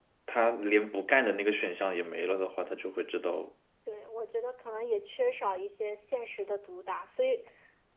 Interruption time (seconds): none

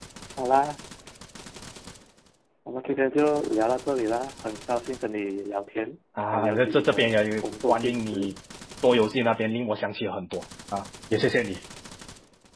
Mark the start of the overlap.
6 s

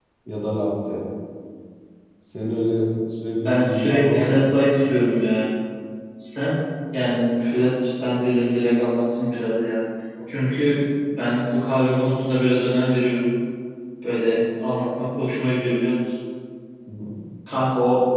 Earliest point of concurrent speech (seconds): 3 s

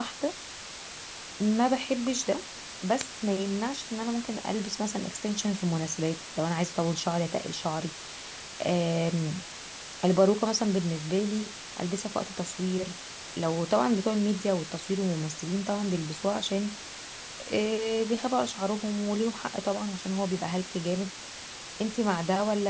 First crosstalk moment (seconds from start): none

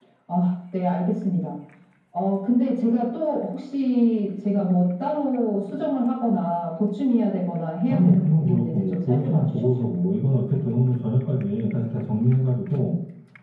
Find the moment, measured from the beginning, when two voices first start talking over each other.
8 s

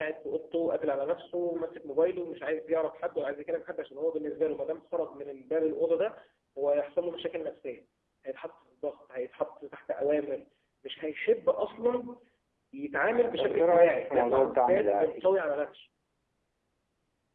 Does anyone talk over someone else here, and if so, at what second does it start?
13 s

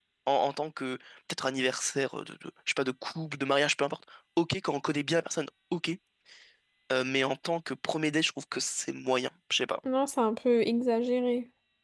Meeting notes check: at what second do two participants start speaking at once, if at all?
none

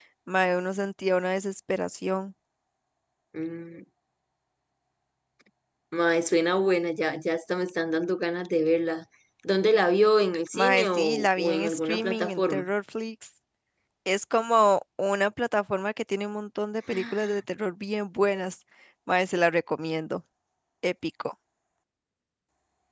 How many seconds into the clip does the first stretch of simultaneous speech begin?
11 s

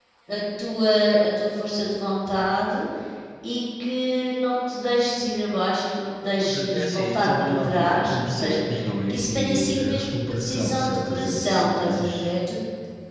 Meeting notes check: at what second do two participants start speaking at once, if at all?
6 s

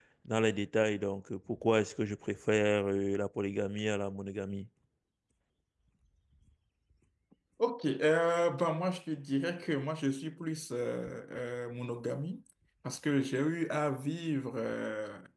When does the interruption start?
none

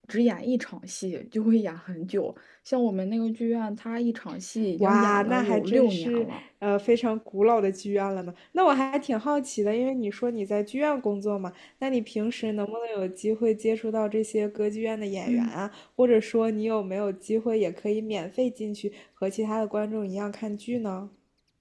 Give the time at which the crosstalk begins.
5 s

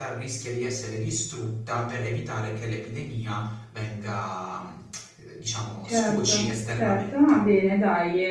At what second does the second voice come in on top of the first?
6 s

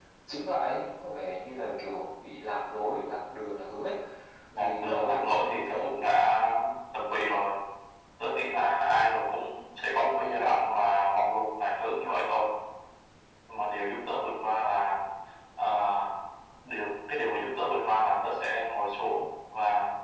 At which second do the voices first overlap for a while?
5 s

